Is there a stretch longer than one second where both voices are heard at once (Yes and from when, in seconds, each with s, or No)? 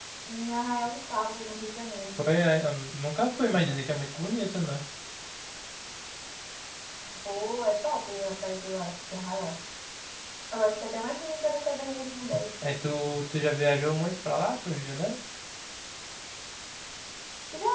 No